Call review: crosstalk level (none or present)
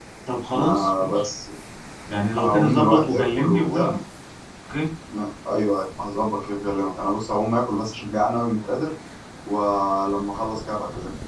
present